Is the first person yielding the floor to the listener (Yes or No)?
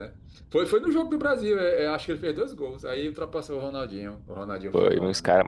Yes